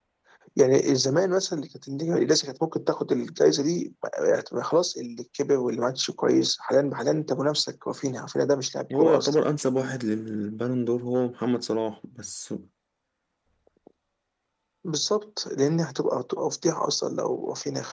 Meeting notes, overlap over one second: none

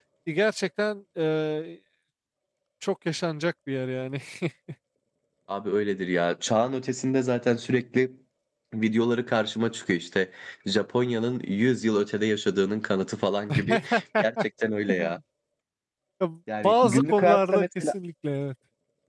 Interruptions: present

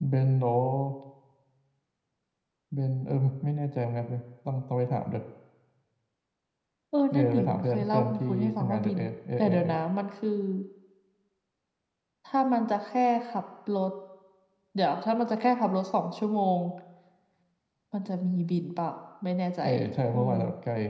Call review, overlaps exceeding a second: present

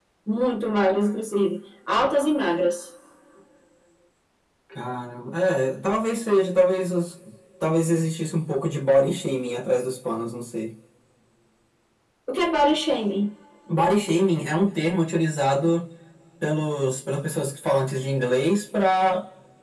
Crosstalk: none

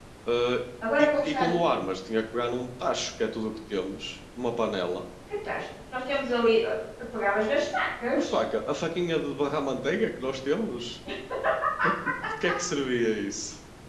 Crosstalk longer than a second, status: none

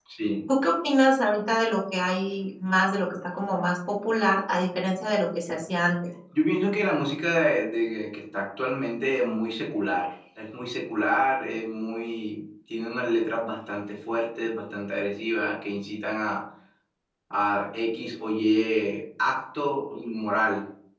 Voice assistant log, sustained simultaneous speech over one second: none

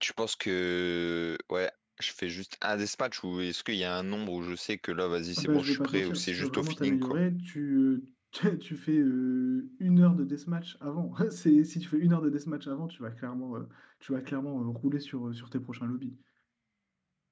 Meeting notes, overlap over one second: present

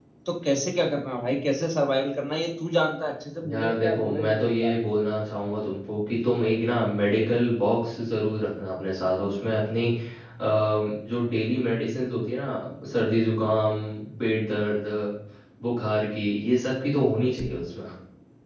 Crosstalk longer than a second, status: present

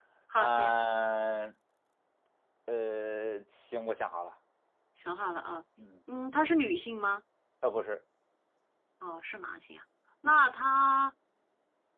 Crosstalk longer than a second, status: none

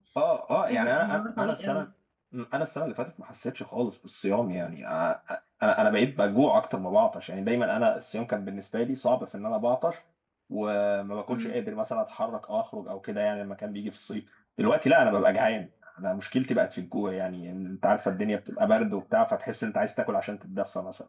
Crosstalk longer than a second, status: present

